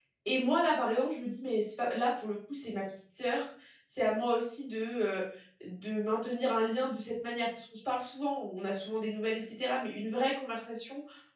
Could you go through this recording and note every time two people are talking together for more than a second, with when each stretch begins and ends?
none

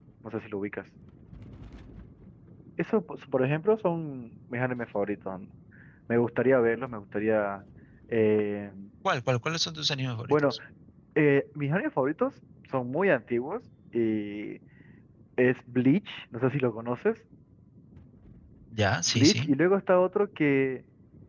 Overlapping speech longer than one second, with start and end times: none

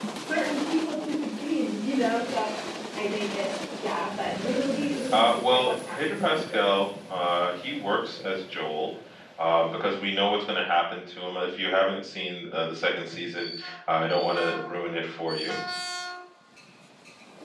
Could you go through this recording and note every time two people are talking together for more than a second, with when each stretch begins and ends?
5.1-6.8

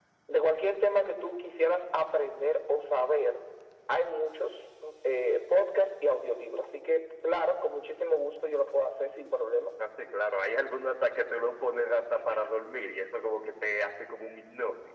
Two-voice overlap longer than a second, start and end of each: none

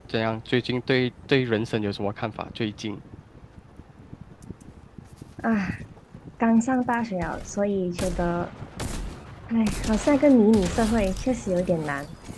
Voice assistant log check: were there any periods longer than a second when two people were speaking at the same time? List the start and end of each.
none

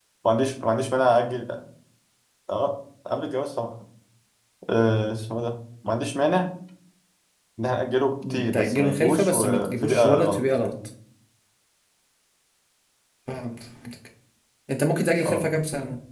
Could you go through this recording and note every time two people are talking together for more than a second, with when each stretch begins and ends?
8.3-10.7

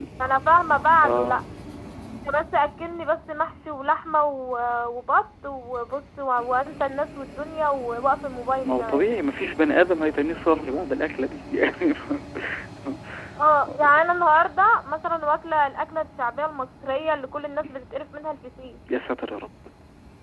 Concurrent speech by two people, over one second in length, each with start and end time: none

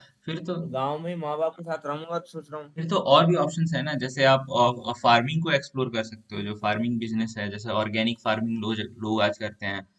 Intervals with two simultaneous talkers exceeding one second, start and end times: none

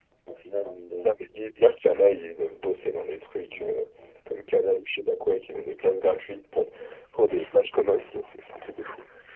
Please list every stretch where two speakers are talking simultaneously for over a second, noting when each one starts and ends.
none

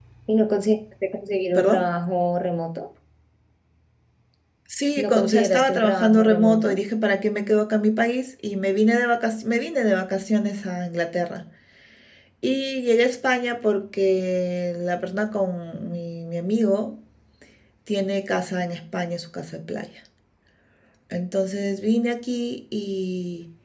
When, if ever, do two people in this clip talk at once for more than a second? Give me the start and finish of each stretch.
5.0-6.8

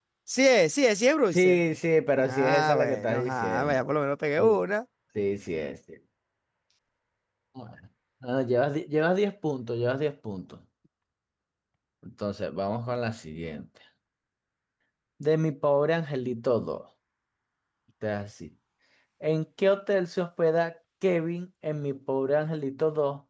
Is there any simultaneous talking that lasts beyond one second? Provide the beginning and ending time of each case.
2.2-3.9

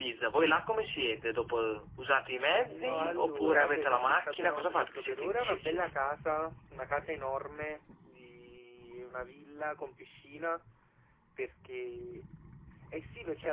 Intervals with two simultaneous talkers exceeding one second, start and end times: 2.7-5.9

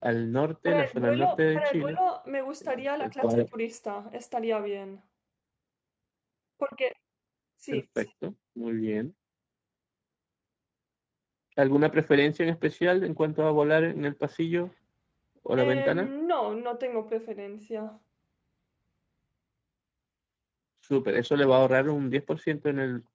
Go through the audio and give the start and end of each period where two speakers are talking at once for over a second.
0.7-2.0

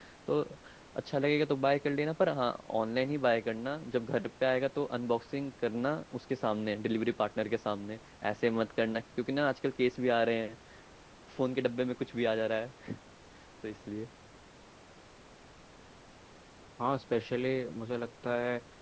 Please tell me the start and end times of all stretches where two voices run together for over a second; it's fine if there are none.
none

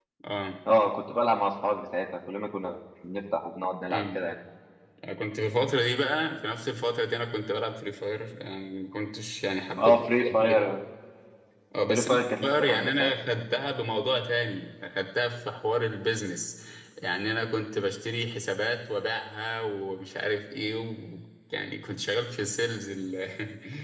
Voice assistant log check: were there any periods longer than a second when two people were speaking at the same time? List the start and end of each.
11.9-13.1

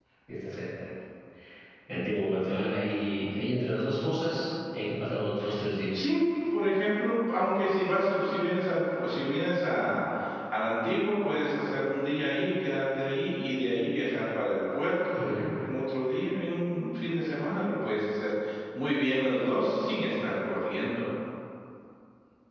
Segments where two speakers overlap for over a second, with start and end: none

